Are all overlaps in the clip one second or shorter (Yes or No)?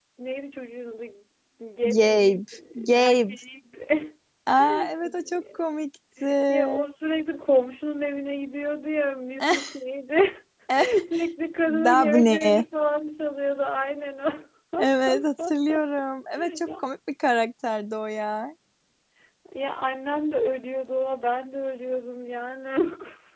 No